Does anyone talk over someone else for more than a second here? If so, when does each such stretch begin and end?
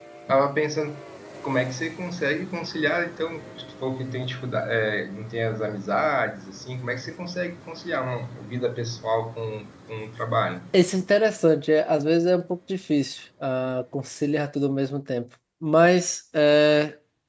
none

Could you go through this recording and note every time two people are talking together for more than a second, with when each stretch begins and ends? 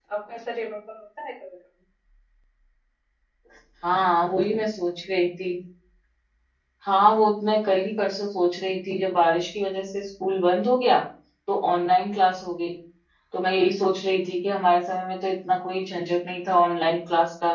none

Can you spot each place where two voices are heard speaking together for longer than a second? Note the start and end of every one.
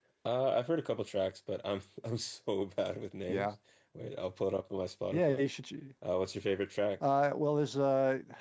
none

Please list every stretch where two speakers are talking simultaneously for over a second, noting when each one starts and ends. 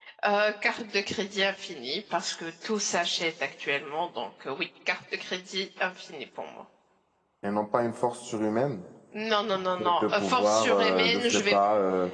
9.8-11.6

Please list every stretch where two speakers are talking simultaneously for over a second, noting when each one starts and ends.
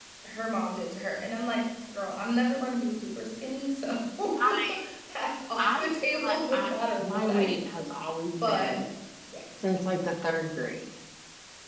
5.6-7.6

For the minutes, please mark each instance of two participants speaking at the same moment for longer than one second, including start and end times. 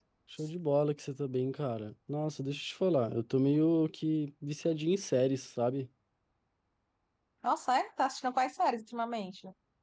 none

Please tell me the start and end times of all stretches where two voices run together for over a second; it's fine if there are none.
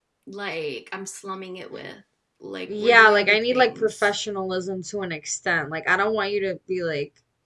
2.7-4.1

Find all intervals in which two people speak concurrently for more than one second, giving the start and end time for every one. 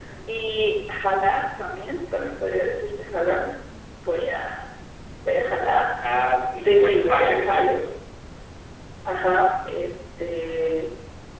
6.6-7.8

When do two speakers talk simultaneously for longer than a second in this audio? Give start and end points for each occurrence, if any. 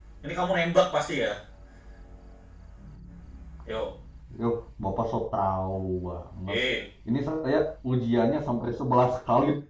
none

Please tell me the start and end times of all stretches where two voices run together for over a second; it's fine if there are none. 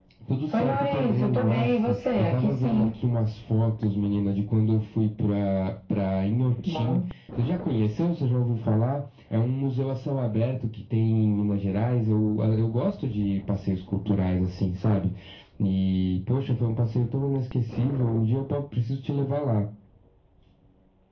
0.5-2.9

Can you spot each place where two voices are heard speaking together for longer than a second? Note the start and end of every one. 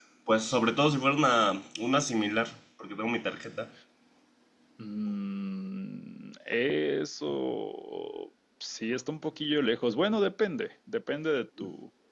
none

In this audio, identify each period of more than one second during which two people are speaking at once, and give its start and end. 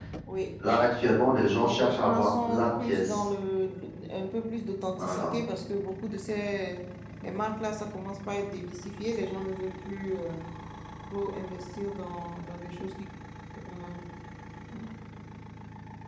1.5-3.2

